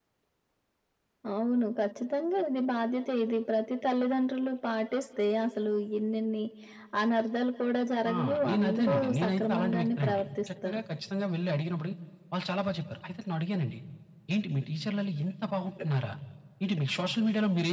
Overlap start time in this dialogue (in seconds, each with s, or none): 8.1 s